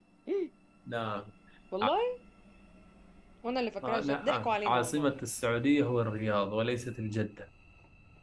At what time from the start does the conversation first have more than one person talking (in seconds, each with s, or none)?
3.8 s